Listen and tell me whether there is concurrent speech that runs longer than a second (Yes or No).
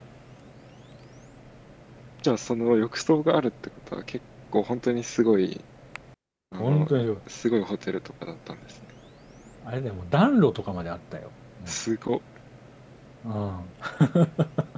No